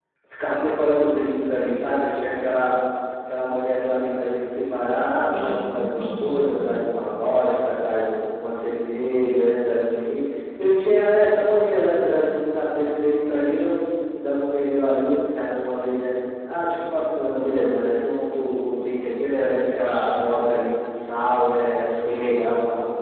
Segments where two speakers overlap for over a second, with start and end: 5.3-6.7

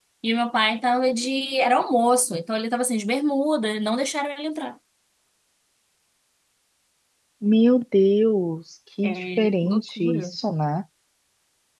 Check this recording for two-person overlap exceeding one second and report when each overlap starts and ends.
9.0-10.3

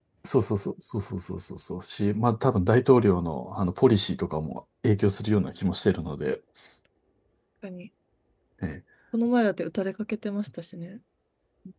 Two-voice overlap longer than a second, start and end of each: none

